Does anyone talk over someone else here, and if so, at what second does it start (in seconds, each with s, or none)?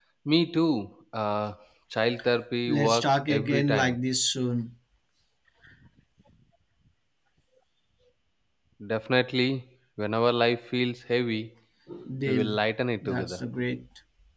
2.7 s